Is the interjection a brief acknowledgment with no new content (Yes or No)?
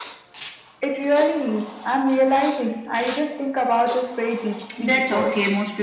No